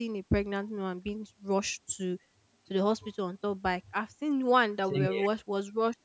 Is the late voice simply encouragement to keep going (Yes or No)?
Yes